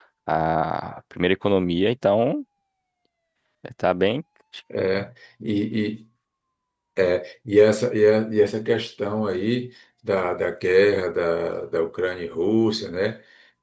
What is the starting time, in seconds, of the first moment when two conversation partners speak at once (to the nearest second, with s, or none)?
none